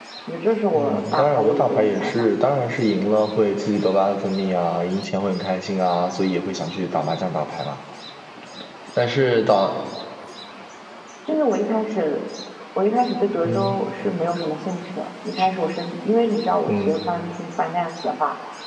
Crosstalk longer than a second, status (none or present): present